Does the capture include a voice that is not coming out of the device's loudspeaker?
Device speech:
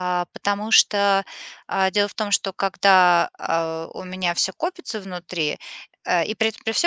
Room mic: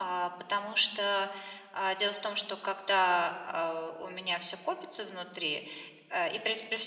No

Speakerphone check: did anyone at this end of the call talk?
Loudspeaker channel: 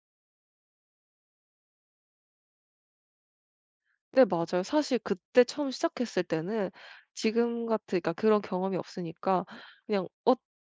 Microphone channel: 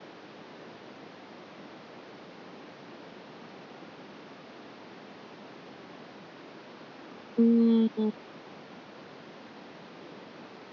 Yes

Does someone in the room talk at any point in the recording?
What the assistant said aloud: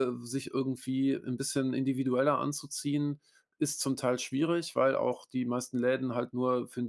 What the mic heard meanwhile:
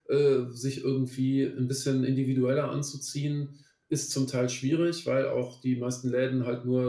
No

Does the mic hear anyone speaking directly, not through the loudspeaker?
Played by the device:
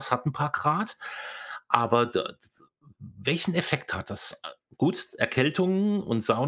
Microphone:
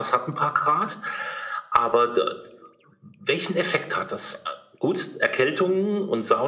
No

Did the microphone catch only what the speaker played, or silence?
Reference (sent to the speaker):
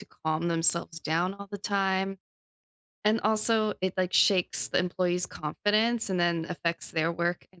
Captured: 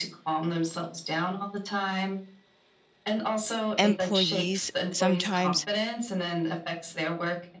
No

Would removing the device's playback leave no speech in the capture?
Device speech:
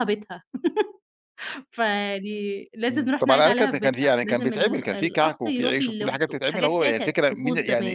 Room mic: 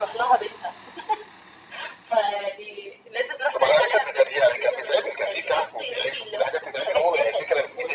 Yes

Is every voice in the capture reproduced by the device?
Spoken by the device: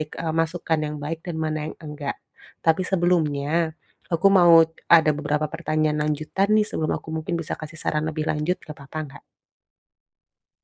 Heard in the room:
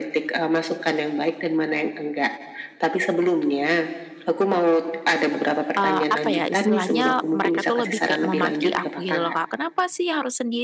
No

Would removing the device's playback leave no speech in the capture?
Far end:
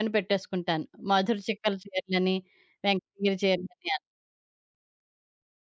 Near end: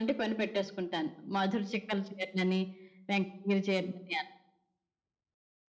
Yes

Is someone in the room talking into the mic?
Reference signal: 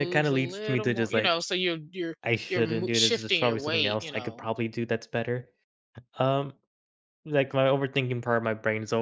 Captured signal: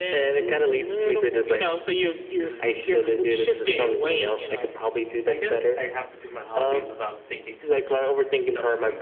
Yes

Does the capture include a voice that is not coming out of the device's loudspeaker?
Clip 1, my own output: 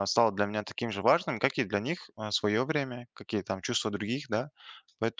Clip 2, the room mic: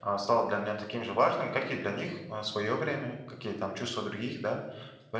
No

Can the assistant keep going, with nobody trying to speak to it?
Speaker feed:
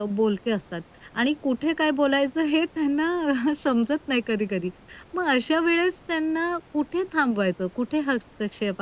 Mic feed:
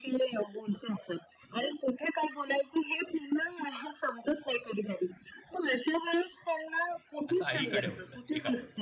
No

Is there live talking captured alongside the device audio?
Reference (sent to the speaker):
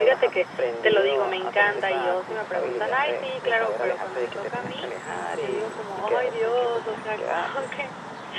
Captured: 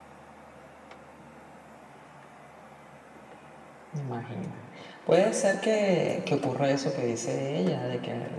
Yes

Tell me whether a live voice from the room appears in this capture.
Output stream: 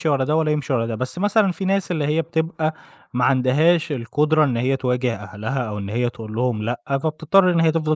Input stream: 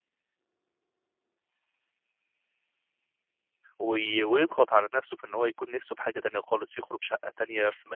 Yes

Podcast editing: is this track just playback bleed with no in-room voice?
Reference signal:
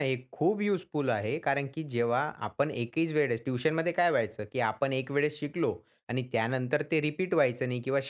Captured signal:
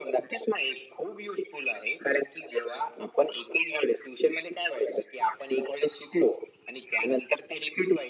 Yes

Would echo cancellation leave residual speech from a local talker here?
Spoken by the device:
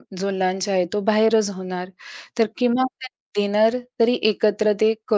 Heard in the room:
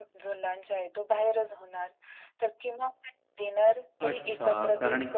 Yes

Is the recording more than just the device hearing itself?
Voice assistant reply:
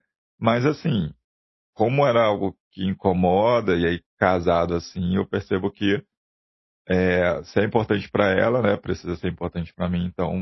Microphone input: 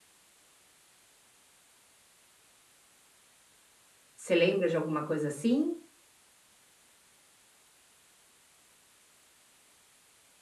Yes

